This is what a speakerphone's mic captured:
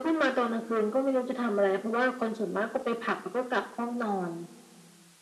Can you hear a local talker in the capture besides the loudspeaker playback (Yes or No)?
No